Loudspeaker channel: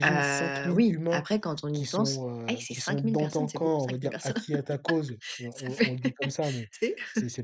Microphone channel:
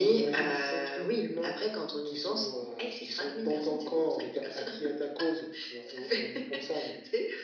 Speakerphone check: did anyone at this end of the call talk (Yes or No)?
No